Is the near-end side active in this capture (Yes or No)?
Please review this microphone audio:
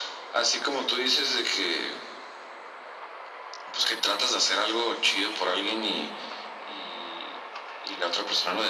No